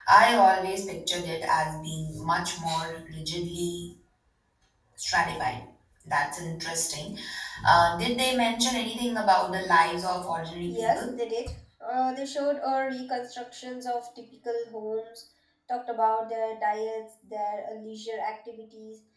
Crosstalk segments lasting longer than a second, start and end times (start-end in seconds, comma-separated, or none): none